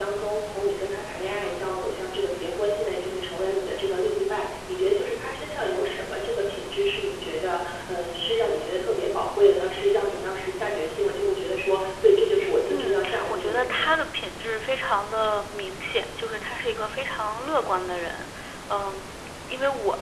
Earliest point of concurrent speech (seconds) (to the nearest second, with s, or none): 13 s